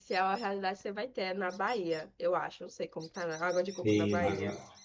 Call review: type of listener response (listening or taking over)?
taking over